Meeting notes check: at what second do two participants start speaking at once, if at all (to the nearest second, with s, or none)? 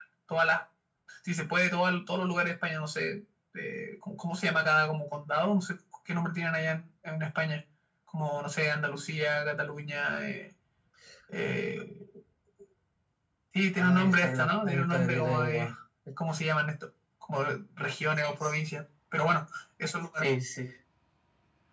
14 s